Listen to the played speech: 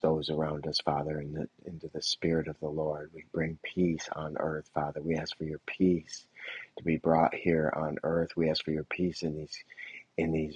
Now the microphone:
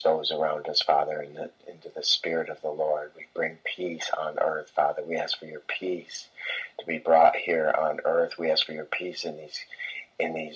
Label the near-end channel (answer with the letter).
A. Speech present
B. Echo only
B